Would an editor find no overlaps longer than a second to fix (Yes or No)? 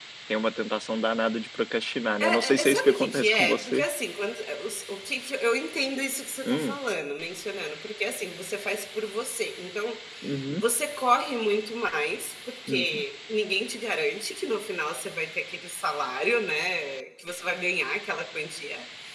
No